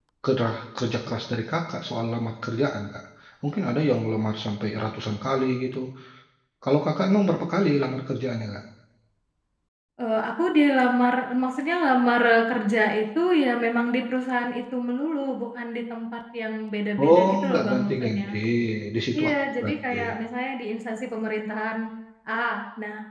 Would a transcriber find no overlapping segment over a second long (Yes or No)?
No